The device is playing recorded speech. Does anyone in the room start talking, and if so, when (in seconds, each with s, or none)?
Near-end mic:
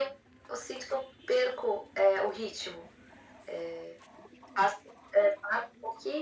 none